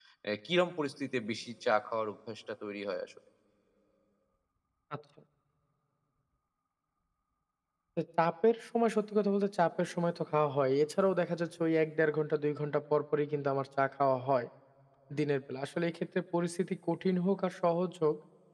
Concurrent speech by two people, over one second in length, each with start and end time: none

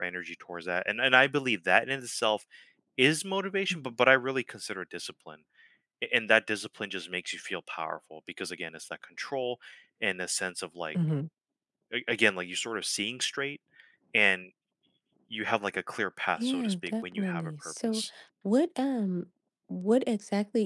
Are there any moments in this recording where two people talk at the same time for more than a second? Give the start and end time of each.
16.4-18.0

